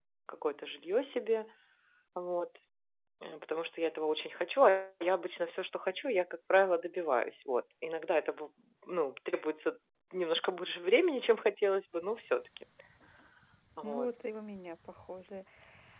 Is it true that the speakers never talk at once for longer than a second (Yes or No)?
Yes